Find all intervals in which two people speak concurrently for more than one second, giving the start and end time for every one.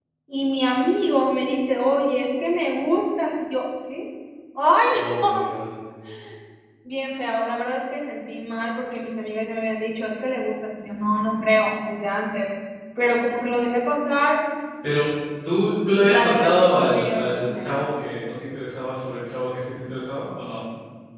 16.0-17.6

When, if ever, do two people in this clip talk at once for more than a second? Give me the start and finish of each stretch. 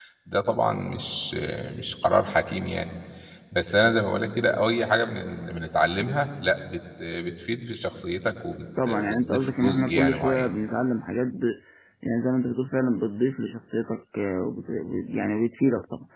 8.8-10.5

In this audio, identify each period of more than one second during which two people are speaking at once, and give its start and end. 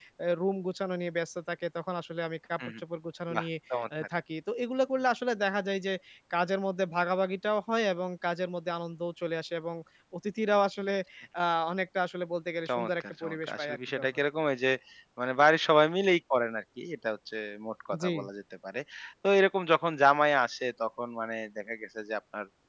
12.7-14.1

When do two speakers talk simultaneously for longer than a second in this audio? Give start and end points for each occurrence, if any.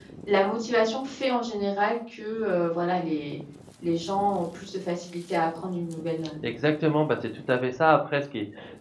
none

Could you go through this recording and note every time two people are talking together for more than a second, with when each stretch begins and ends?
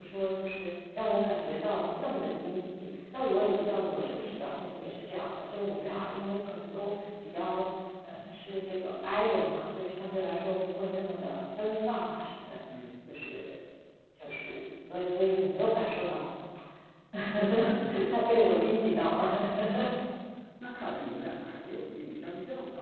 none

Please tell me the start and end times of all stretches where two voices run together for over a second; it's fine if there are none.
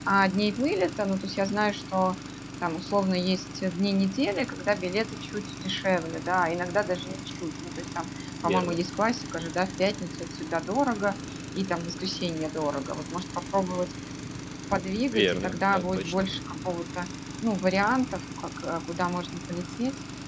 15.0-16.3

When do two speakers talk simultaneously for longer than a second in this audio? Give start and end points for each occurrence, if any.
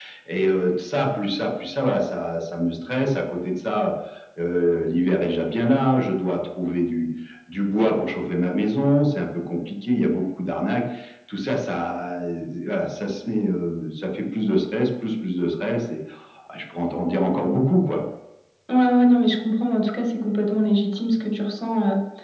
none

